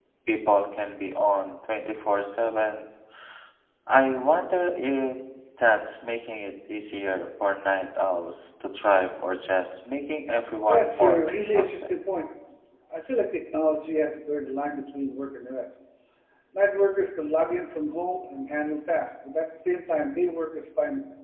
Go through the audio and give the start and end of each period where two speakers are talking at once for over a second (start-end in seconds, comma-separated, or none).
10.7-12.0